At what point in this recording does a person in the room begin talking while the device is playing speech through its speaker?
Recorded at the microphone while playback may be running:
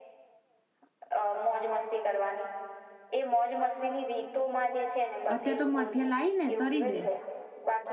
5.3 s

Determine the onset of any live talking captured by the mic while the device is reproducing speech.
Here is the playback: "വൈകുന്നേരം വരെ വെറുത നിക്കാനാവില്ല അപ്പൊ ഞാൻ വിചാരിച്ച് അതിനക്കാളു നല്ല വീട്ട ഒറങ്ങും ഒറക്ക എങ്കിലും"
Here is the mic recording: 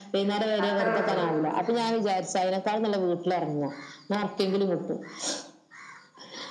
0.6 s

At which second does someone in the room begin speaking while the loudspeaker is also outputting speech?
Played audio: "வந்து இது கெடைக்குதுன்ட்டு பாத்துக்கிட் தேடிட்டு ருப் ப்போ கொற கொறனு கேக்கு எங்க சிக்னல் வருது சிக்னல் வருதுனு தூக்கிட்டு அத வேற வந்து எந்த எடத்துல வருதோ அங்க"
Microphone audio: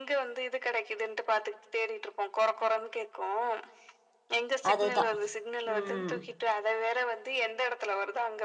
4.7 s

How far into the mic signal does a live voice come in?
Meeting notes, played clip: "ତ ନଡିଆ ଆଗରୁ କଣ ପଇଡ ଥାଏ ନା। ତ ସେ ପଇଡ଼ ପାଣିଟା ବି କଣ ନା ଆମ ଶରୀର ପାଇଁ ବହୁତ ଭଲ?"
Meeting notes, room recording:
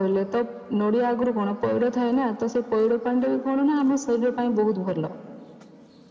none

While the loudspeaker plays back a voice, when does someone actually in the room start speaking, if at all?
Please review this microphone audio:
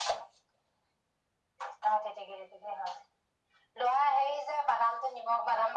none

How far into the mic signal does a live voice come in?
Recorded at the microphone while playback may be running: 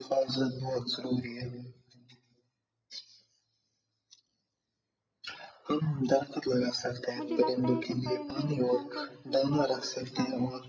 7.2 s

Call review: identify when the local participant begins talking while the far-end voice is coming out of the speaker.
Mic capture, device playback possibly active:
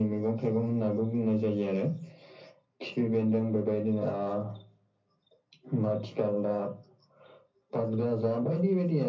none

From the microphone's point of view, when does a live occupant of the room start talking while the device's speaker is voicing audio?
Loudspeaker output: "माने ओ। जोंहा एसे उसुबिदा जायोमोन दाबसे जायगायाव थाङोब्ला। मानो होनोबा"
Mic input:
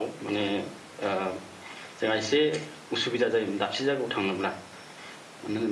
none

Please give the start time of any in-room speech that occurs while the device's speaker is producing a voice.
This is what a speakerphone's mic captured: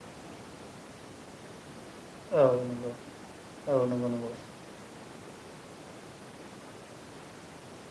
2.4 s

